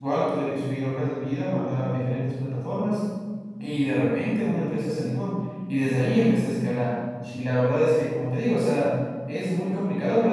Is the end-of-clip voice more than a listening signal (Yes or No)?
No